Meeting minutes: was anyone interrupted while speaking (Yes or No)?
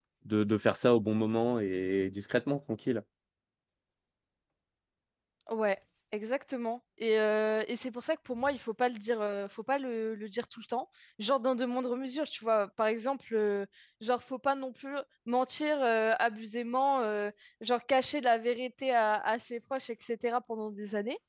No